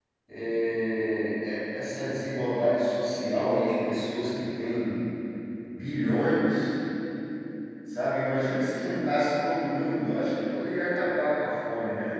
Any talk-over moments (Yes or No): No